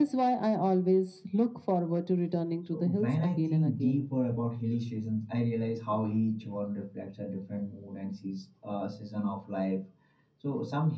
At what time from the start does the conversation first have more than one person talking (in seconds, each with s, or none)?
2.7 s